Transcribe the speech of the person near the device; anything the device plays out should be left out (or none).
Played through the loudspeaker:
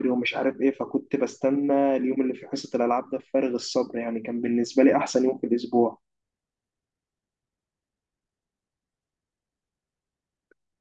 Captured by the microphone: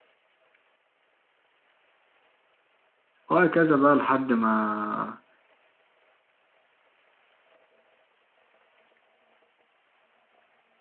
وهكذا بقى لحد ما